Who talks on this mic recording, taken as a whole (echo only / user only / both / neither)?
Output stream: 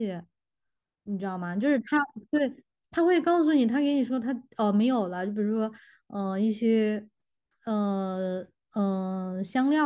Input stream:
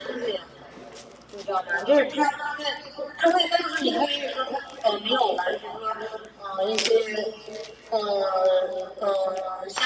echo only